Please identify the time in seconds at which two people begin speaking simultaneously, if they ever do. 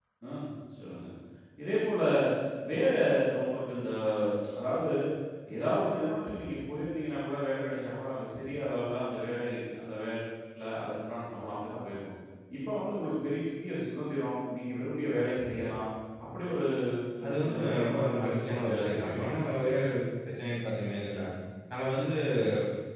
17.3 s

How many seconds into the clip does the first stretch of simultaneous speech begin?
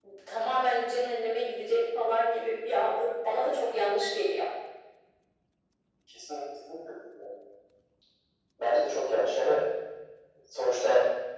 none

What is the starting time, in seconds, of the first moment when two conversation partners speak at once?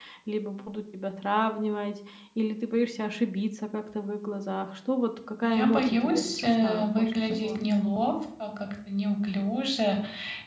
5.4 s

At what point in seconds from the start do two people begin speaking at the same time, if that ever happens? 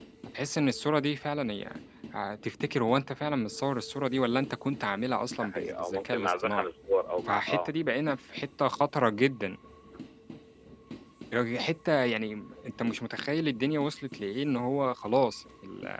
5.4 s

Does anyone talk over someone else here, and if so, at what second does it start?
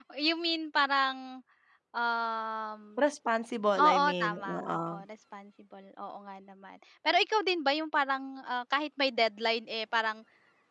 3.8 s

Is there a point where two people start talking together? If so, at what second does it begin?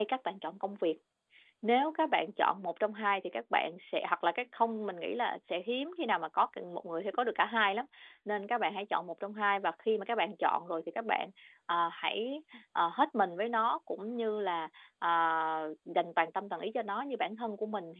none

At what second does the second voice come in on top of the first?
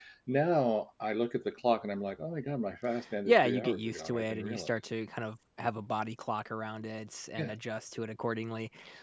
3.2 s

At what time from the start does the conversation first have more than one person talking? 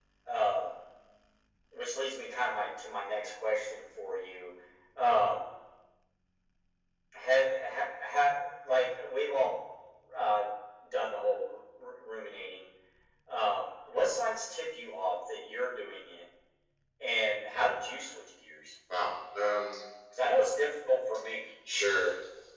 none

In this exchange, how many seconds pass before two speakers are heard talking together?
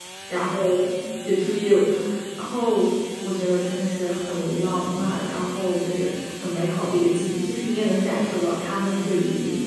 none

